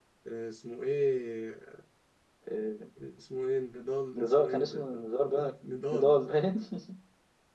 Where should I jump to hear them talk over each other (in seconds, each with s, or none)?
4.2 s